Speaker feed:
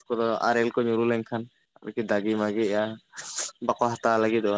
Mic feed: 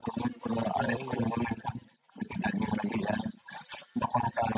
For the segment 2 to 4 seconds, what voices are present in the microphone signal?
echo only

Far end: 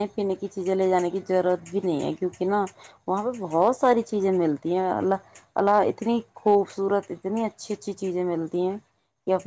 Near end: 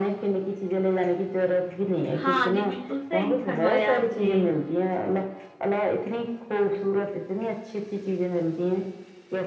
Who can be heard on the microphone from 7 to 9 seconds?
echo only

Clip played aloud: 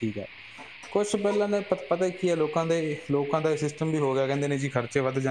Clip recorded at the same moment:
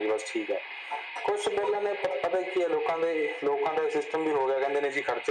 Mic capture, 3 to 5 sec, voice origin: echo only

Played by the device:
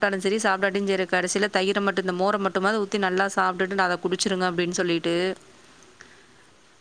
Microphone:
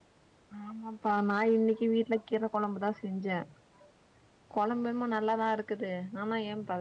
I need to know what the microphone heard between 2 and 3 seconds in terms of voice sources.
user only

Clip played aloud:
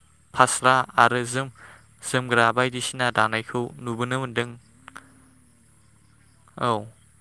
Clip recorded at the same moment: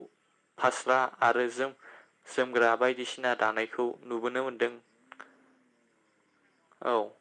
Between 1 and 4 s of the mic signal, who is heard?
echo only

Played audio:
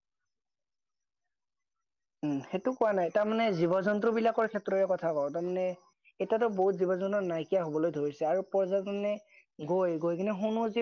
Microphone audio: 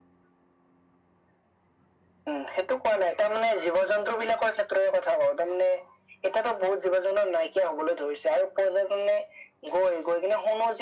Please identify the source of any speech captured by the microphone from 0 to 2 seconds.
neither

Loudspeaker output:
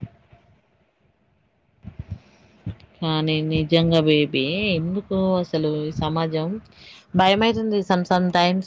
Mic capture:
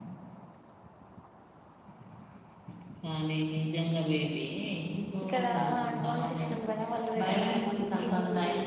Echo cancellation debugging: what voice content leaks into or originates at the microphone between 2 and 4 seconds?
echo only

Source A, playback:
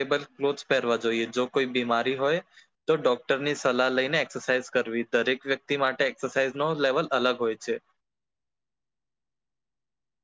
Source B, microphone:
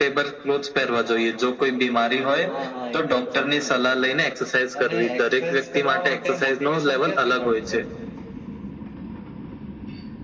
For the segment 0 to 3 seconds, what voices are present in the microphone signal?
both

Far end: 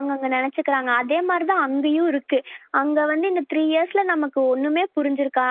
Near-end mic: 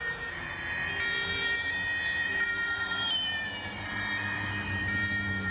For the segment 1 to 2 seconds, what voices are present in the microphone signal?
neither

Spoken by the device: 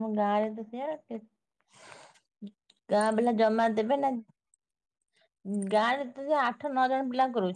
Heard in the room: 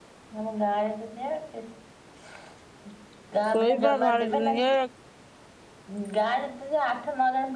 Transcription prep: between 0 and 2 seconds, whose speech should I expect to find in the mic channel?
echo only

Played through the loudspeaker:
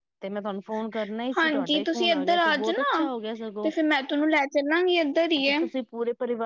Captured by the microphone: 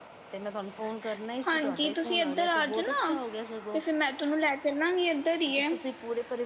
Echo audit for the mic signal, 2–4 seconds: echo only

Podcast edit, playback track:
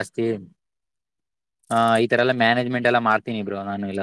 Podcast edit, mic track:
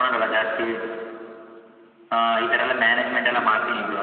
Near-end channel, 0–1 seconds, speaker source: echo only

